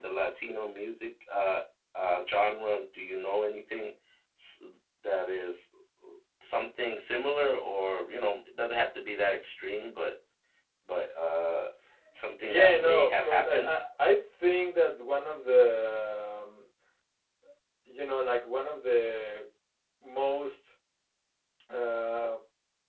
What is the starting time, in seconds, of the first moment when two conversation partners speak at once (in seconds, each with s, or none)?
12.4 s